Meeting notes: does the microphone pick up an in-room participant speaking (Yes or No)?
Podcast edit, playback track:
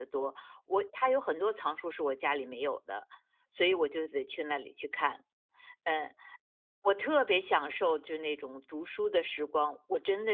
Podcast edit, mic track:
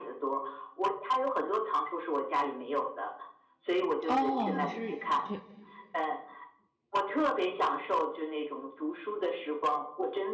Yes